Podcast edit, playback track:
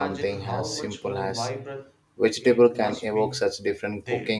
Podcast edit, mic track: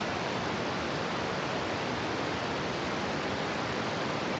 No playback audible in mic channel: Yes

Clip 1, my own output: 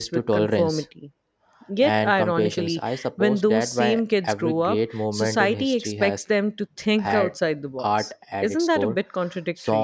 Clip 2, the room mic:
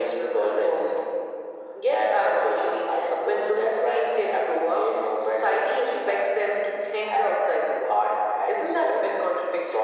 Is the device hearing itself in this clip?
Yes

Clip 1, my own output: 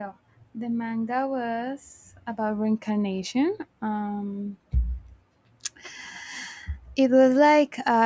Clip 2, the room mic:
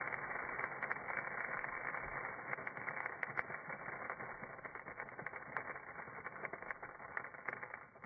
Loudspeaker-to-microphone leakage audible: No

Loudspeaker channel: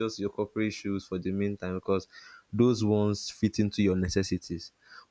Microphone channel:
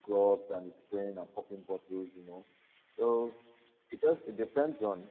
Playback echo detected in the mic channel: No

